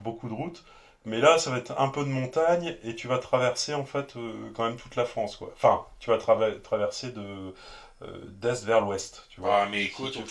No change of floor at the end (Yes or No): No